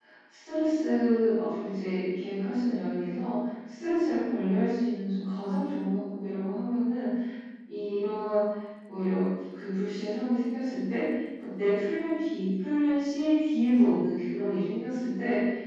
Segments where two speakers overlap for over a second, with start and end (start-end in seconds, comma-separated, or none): none